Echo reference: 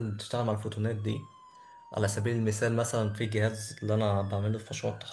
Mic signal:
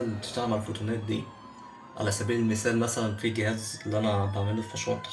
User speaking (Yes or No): No